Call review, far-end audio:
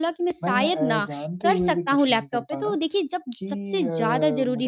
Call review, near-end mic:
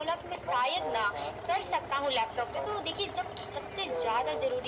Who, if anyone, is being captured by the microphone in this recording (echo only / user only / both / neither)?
echo only